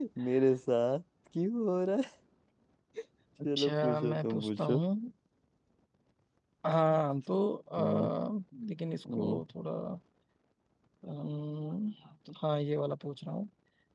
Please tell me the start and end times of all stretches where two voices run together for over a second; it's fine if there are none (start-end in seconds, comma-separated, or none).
3.4-4.8